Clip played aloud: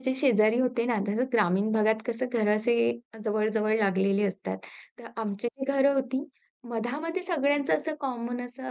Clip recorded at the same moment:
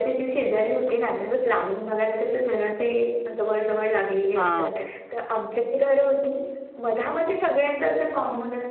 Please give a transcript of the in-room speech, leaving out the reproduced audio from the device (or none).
हां.